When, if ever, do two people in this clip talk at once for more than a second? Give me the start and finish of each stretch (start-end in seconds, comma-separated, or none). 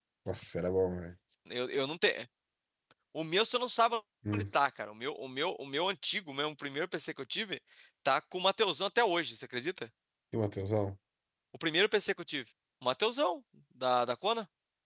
none